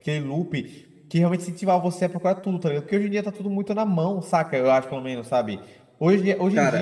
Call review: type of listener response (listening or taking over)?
listening